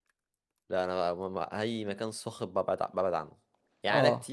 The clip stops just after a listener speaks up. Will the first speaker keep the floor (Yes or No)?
Yes